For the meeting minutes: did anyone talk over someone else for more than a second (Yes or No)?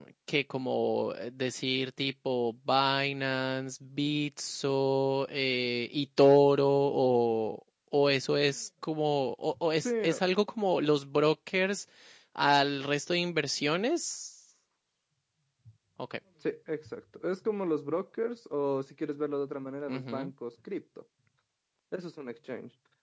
No